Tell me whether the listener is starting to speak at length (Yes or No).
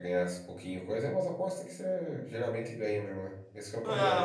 Yes